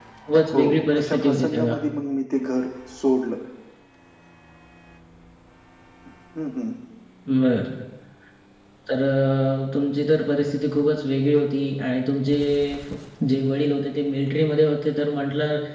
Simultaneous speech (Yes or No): Yes